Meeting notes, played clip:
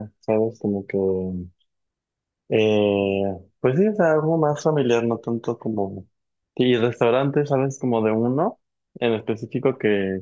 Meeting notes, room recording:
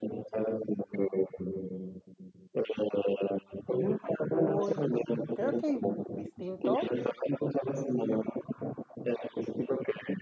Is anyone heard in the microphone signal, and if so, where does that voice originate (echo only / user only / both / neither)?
both